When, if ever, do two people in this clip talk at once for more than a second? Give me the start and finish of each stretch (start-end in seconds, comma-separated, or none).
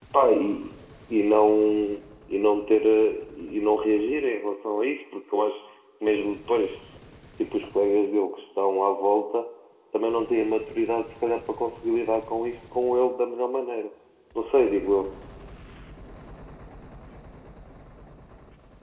none